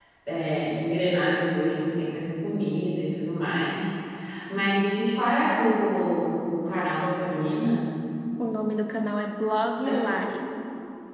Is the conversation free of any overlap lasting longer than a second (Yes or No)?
Yes